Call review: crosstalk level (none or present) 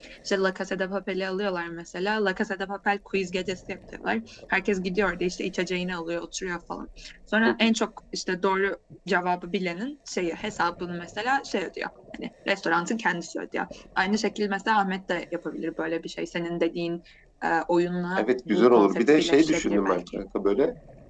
present